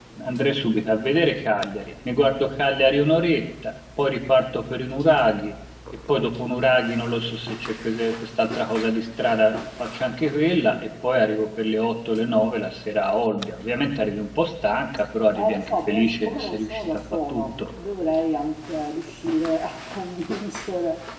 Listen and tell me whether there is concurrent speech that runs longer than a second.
Yes, from 15.3 s

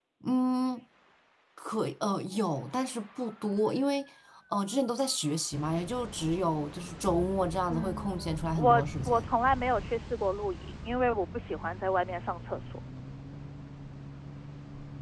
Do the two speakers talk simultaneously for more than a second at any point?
Yes, from 7.7 s

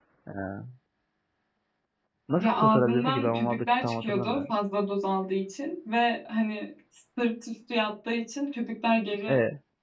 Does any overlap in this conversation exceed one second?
Yes, from 2.4 s

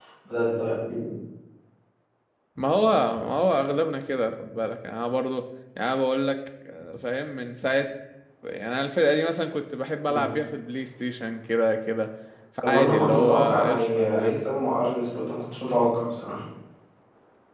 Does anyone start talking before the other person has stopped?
Yes, from 12.6 s

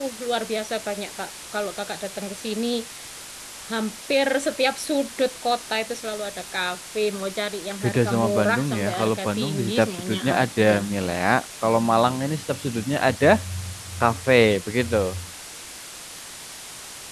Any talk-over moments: Yes, from 7.8 s

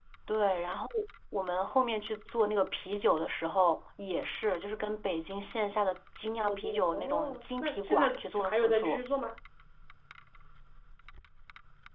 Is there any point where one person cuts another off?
Yes, from 6.5 s

